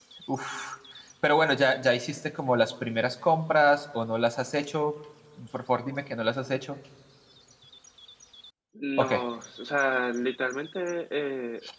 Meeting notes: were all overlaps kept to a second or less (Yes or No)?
Yes